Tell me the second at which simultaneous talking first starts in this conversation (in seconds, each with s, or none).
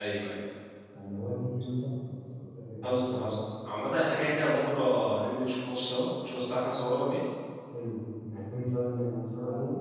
none